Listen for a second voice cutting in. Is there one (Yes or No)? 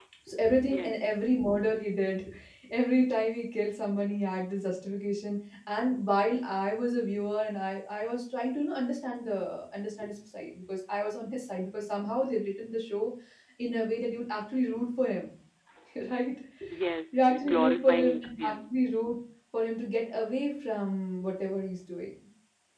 Yes